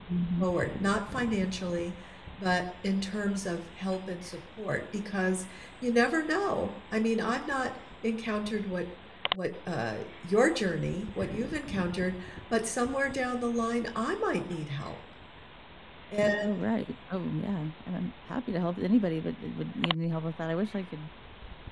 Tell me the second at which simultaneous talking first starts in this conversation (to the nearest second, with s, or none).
none